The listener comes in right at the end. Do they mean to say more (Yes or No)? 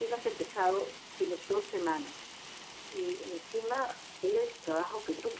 No